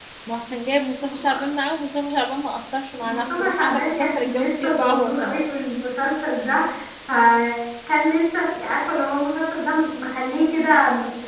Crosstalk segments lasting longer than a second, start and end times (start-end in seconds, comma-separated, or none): 3.0-5.4